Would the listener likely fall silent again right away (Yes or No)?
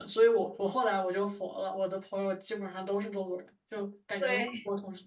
Yes